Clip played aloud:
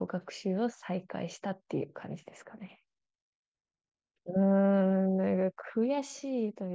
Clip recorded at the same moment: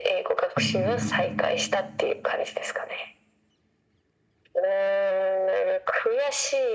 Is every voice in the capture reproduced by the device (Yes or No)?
No